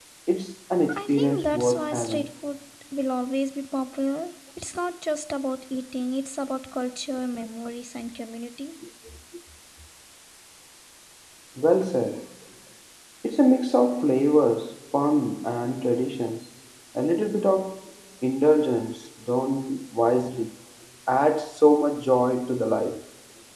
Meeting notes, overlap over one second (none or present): present